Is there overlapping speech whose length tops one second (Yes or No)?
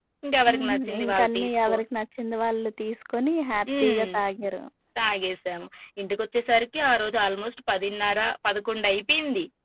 Yes